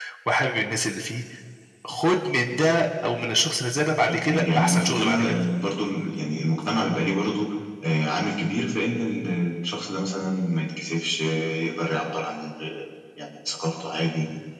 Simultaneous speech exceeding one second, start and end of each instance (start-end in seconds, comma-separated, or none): 4.1-5.3